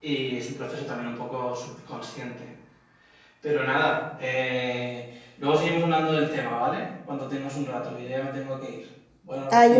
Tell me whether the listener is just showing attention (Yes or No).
No